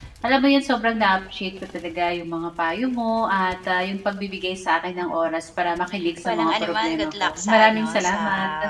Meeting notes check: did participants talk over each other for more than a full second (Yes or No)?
Yes